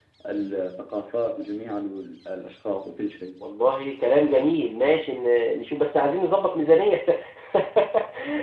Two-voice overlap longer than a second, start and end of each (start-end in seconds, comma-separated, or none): none